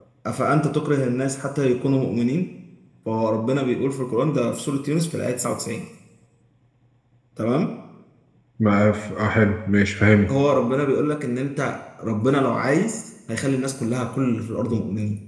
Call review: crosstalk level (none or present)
none